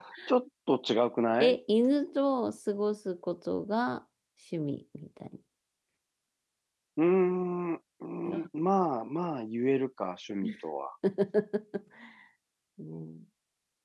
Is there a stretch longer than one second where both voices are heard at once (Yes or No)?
No